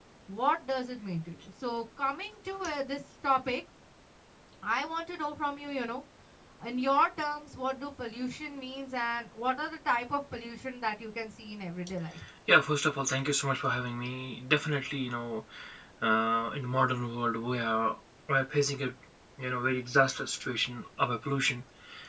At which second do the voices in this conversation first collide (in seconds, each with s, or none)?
none